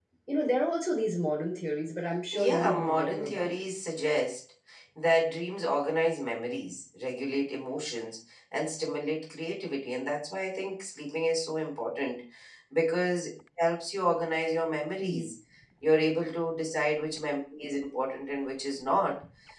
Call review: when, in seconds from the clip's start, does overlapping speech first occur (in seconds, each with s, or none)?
2.3 s